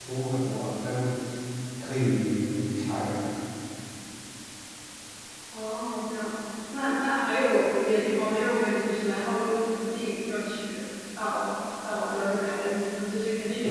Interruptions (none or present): none